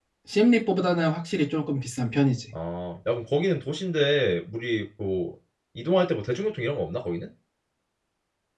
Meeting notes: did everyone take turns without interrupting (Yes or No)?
Yes